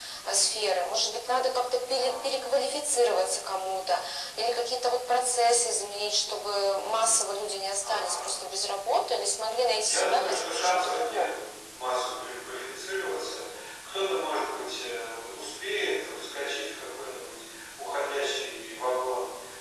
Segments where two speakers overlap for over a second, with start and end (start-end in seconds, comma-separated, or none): 9.8-11.4